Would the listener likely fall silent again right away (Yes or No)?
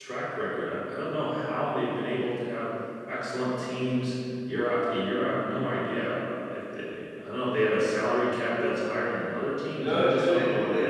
No